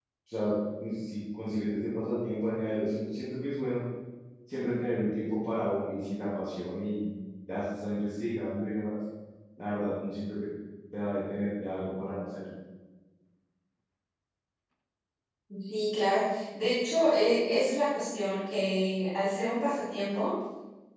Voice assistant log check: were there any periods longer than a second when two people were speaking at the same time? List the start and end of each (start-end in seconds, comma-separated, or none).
none